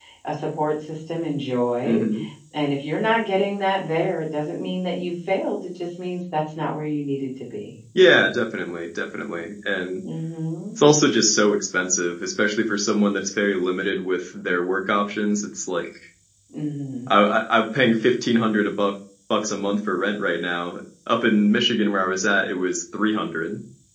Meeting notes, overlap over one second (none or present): none